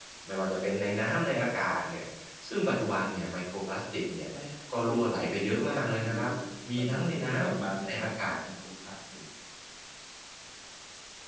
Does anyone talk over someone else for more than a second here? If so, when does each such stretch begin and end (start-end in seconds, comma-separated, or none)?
4.8-6.2, 6.7-8.3